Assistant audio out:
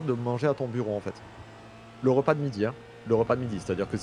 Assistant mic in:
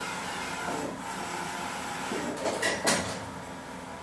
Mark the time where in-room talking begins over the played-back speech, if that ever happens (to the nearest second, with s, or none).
none